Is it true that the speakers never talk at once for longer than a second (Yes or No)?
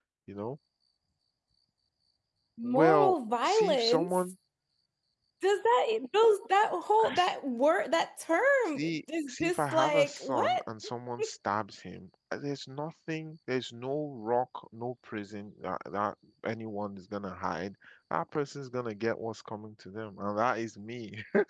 No